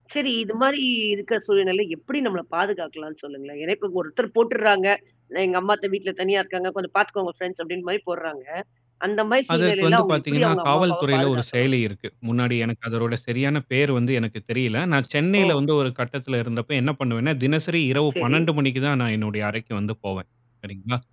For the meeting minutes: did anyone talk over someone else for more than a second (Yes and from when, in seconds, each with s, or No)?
Yes, from 9.5 s